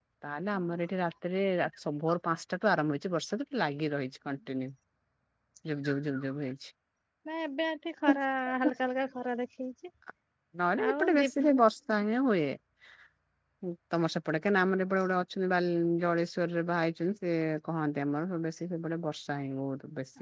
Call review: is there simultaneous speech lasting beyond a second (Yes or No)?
No